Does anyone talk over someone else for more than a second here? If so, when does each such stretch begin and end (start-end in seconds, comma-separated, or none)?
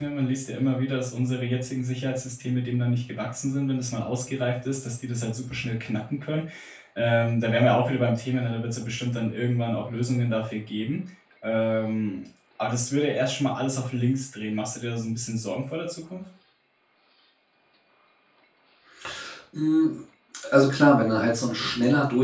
none